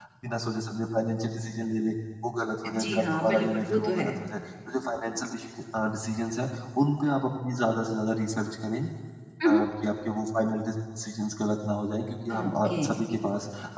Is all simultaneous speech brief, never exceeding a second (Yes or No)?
No